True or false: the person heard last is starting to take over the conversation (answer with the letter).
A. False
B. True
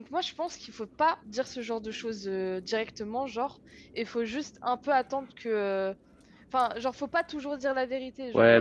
B